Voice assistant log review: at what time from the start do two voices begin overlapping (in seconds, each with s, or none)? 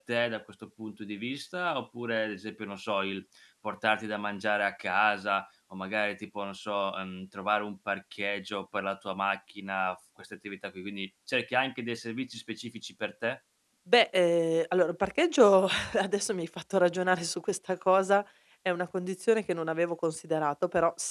none